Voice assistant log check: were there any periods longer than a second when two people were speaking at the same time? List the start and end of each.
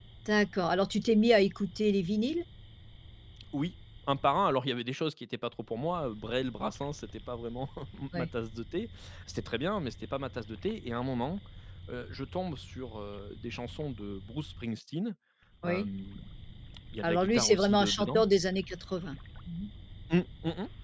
17.0-18.2

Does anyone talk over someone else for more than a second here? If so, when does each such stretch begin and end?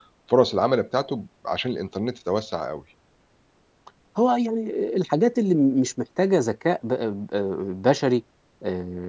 none

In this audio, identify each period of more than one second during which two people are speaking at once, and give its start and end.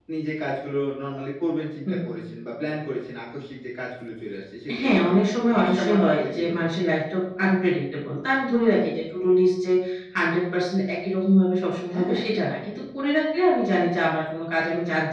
5.5-6.9

